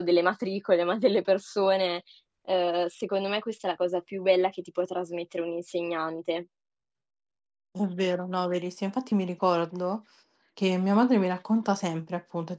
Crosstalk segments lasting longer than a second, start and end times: none

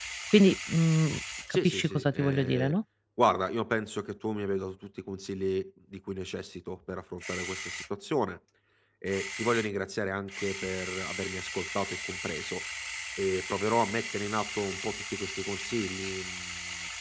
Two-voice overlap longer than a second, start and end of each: 1.5-2.7

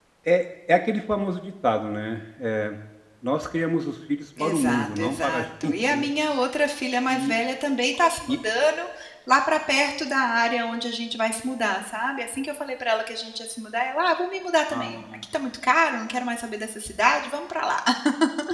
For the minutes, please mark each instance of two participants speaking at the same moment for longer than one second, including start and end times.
4.4-6.1

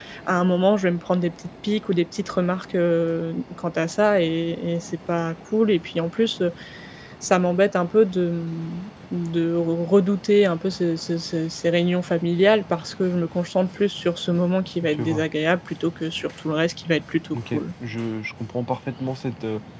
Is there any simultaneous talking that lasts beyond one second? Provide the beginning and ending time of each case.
none

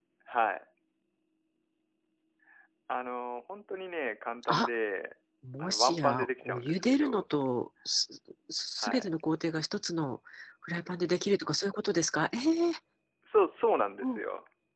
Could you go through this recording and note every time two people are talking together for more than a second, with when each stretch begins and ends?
5.6-7.2

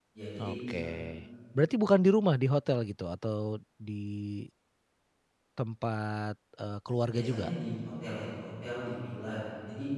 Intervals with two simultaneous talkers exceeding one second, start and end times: none

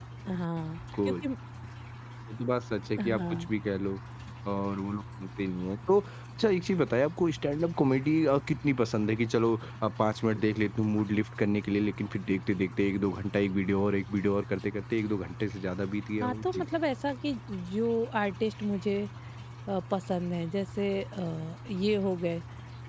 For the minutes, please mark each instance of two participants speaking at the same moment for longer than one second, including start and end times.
none

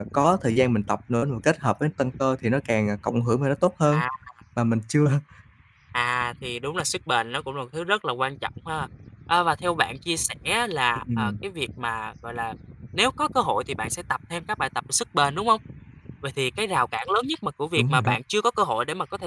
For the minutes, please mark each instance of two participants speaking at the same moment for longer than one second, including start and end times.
none

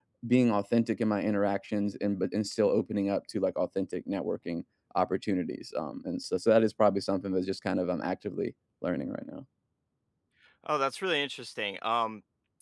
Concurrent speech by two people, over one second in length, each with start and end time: none

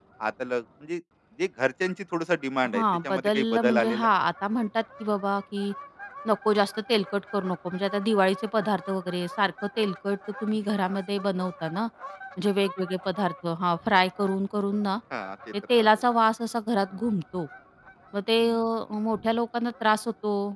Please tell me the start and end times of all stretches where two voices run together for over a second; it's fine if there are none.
2.7-4.1

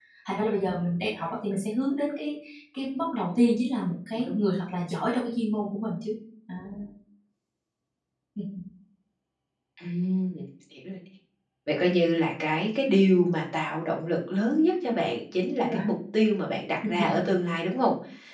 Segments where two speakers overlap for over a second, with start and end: none

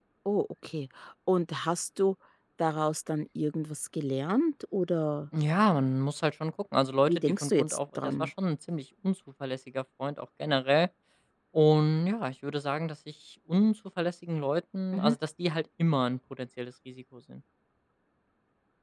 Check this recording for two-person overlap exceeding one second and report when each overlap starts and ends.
7.1-8.3

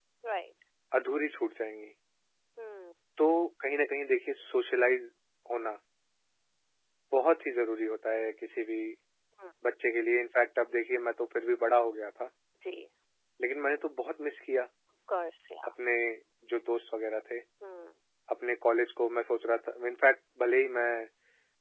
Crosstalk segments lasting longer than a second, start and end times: none

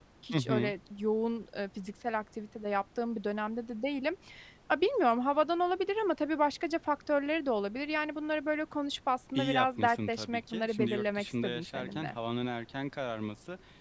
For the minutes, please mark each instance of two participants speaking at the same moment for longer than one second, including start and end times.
9.3-12.2

